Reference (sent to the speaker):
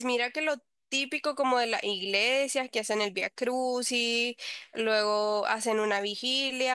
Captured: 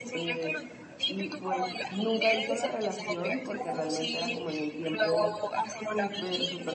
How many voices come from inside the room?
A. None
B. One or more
B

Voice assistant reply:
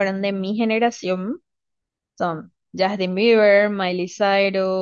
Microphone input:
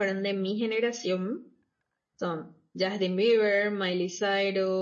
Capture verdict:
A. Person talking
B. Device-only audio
B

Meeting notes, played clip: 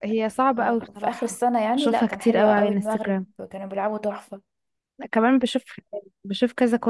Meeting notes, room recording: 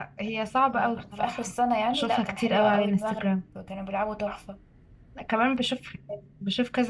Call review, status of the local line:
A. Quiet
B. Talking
A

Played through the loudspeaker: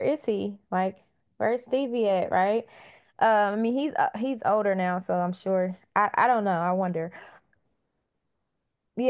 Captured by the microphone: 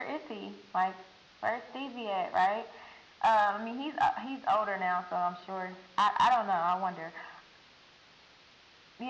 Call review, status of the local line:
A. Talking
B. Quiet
B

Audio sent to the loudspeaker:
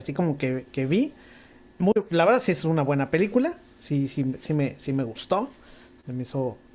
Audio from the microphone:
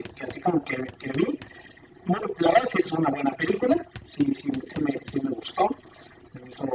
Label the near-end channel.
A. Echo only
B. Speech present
A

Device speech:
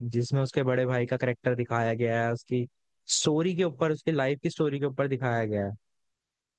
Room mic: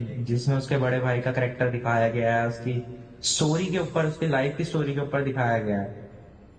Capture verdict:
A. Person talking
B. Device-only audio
B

